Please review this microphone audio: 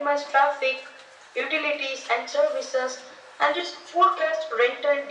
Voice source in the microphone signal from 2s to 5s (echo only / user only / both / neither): echo only